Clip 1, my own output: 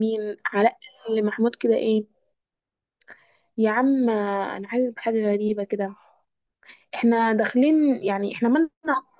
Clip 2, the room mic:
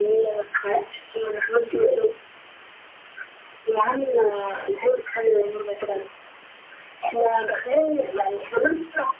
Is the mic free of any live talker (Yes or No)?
Yes